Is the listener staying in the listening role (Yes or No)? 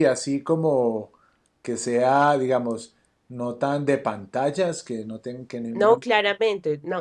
No